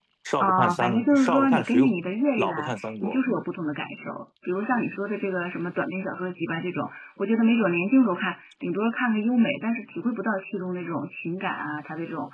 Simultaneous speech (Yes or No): Yes